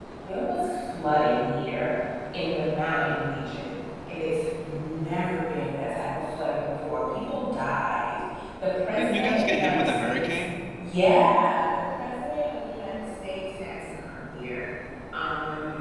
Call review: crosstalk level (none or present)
present